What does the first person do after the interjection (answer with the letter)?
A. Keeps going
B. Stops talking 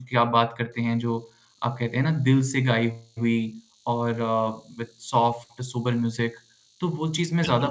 B